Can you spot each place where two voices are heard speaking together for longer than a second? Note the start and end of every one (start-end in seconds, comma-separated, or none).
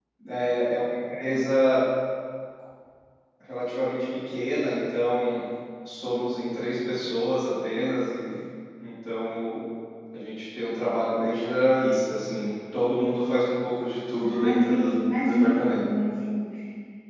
14.3-15.8